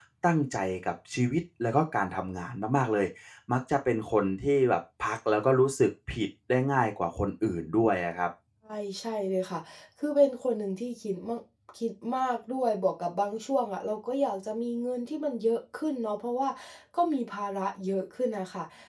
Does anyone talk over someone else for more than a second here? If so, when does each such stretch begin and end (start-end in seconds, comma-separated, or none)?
none